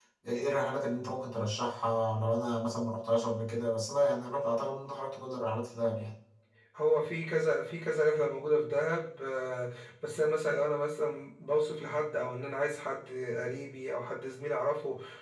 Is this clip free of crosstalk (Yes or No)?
Yes